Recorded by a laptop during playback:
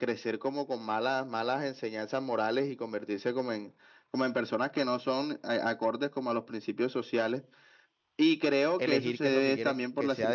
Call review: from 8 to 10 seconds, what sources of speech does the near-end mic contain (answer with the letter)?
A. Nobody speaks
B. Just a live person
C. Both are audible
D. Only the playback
C